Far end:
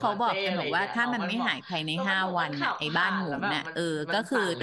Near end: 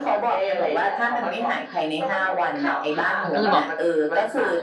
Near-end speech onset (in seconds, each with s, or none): 3.2 s